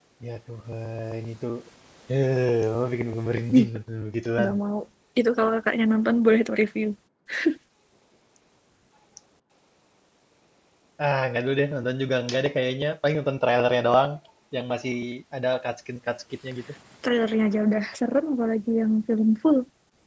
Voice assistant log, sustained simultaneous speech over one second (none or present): none